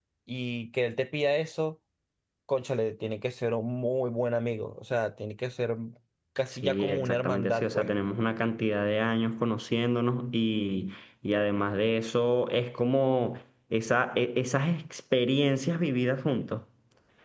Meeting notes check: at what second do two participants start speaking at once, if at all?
7 s

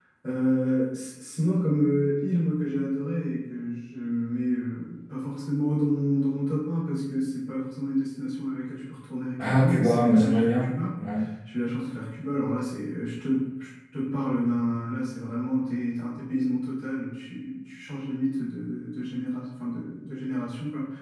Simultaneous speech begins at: 9 s

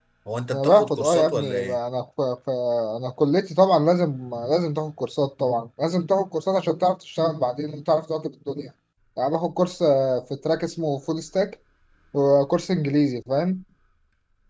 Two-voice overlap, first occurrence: 1 s

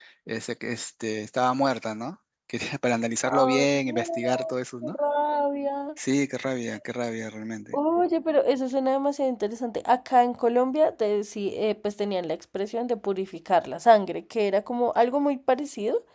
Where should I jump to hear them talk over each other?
3 s

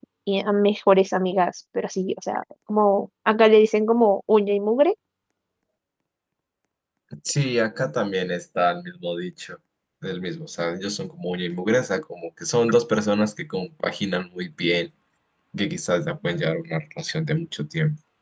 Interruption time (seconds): none

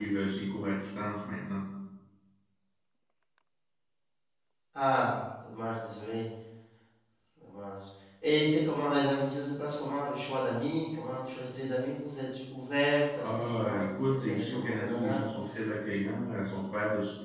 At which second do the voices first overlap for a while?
13 s

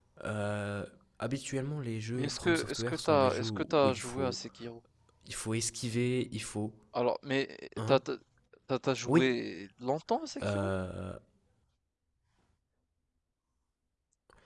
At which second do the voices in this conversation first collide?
2 s

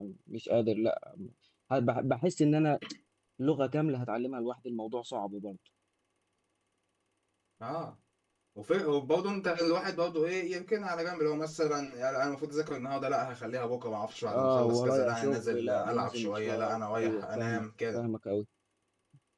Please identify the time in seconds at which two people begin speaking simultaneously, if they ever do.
14 s

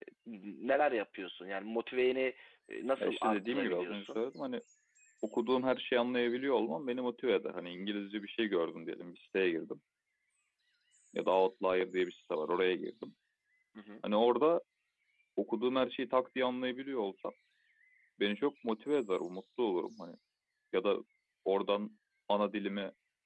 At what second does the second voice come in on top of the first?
3 s

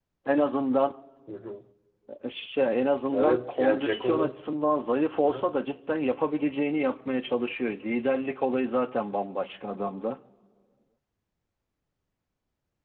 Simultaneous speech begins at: 3 s

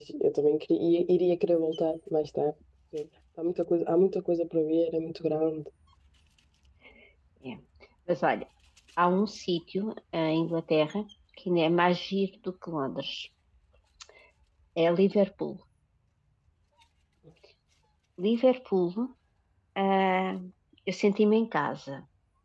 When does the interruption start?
none

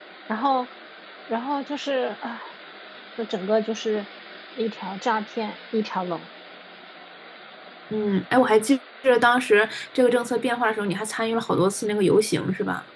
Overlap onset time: none

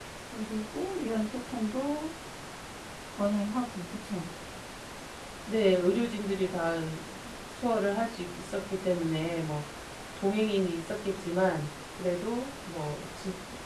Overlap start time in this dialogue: none

